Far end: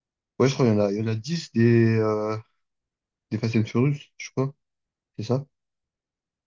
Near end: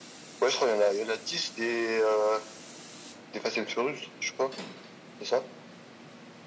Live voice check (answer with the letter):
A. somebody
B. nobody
B